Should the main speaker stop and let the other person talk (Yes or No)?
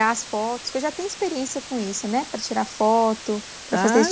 Yes